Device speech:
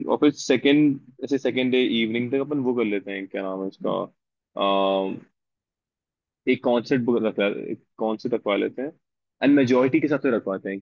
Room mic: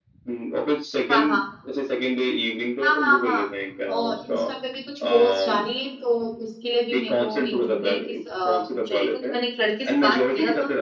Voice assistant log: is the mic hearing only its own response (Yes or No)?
No